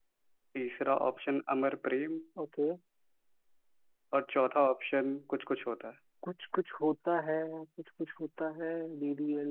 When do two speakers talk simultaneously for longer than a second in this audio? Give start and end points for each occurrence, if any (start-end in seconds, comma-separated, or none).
none